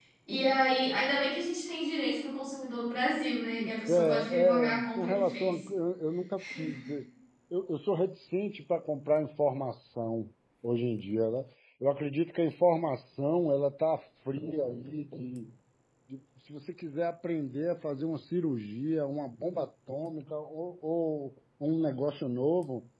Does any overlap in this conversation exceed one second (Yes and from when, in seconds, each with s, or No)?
Yes, from 3.9 s